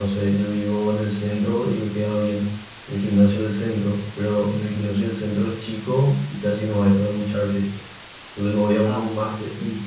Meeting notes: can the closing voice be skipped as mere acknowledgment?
Yes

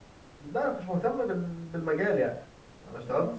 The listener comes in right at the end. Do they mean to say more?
Yes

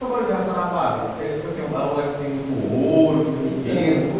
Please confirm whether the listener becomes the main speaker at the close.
Yes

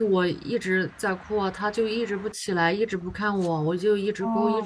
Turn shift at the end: No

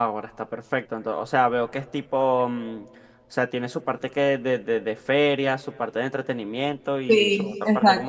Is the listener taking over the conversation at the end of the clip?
Yes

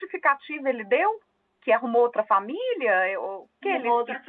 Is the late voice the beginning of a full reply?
Yes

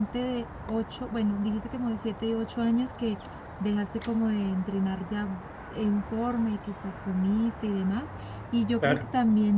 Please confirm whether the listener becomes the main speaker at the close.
No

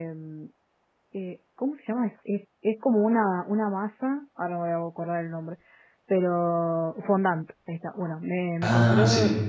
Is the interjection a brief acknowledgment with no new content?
Yes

